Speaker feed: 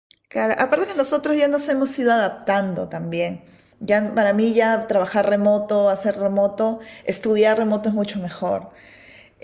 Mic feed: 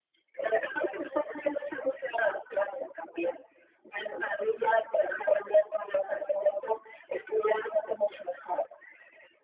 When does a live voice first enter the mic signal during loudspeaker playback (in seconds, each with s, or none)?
none